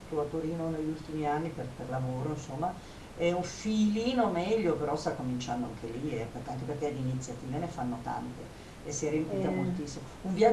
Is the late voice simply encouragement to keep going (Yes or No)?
Yes